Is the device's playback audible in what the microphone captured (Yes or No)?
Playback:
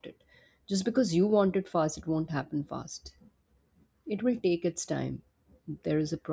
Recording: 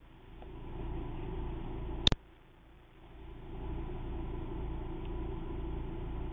No